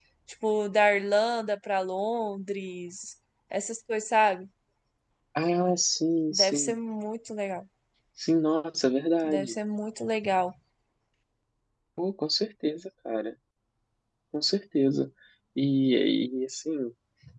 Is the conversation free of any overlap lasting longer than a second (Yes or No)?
Yes